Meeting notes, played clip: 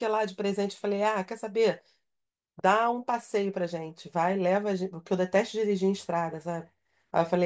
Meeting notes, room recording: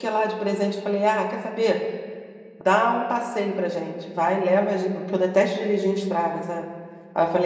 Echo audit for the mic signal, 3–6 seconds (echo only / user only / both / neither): echo only